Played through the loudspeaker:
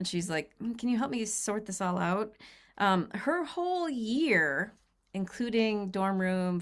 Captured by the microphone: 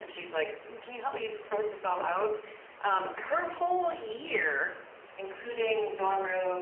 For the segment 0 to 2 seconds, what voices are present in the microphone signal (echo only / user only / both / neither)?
echo only